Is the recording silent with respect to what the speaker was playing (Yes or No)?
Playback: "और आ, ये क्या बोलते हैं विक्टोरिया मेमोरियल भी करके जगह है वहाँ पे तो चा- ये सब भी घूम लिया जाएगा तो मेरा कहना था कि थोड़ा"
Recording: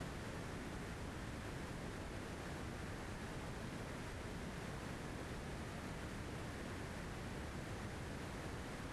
Yes